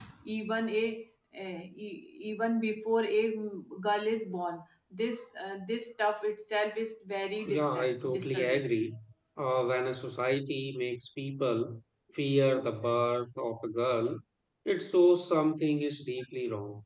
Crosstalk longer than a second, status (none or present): present